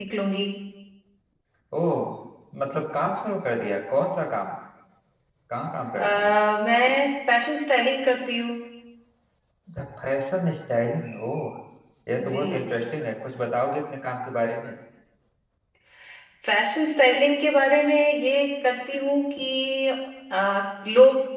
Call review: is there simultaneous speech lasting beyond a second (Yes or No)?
No